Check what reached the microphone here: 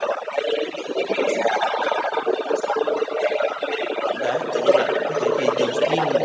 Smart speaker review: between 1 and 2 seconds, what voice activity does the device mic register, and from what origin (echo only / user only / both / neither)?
echo only